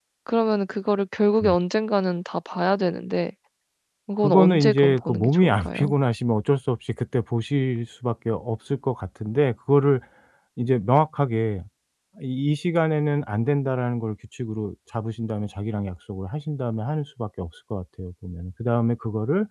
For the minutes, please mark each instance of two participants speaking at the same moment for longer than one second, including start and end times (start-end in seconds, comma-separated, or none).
4.2-5.9